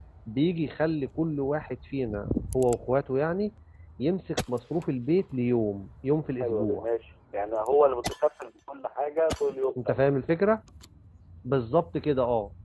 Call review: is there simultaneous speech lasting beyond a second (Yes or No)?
No